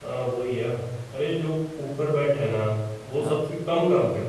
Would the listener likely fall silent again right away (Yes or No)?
Yes